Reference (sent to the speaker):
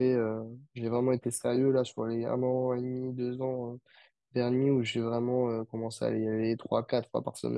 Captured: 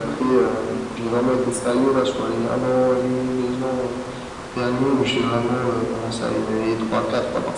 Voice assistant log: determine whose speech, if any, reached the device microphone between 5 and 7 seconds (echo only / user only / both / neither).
echo only